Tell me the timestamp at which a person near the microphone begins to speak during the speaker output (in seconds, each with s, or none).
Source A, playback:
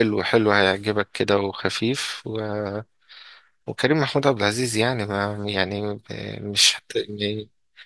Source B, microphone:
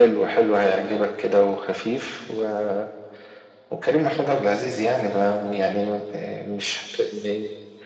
none